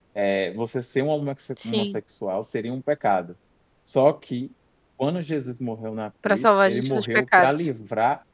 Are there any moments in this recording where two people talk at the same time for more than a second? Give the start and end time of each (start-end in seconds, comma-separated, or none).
6.2-7.7